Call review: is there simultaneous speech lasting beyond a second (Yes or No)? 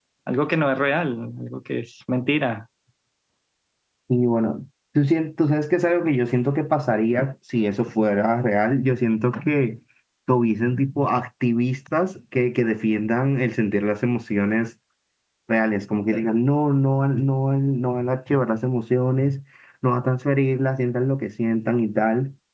No